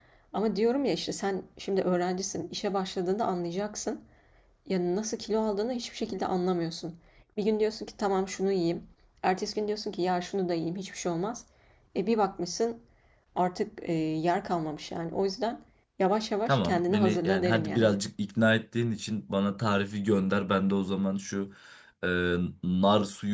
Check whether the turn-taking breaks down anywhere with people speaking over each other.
Yes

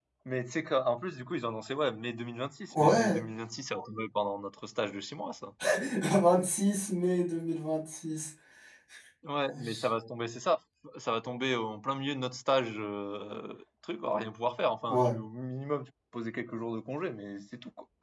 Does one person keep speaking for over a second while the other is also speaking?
No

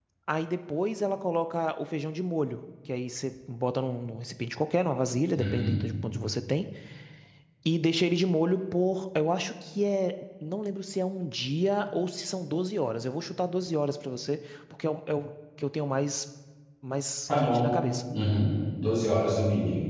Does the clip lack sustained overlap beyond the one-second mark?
Yes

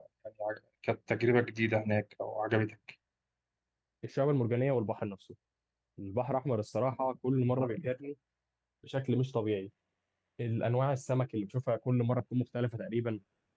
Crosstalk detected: No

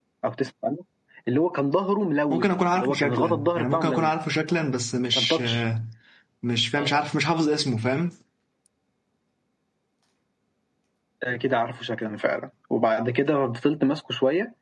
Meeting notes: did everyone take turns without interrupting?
No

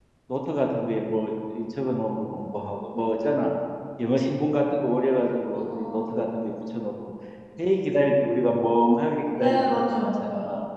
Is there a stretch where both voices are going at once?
Yes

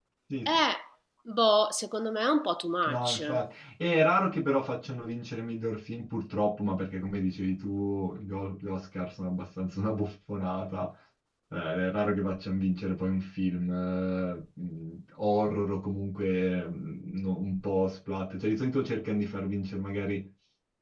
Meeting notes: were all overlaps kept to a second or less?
Yes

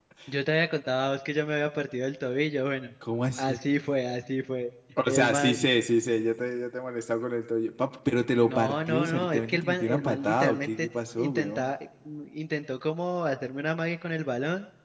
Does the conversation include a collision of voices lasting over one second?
Yes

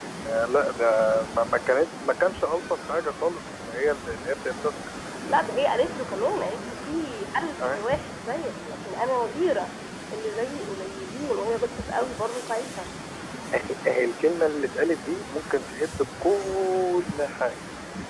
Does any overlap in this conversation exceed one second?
No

